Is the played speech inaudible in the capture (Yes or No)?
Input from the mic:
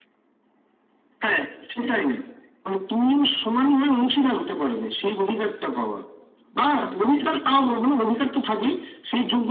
No